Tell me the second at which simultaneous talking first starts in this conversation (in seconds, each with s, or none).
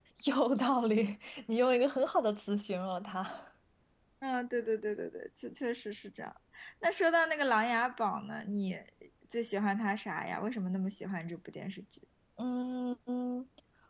none